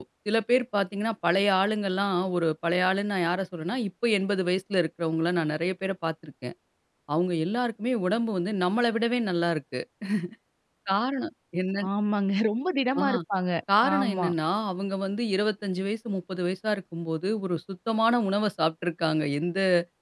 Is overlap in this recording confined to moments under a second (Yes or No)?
Yes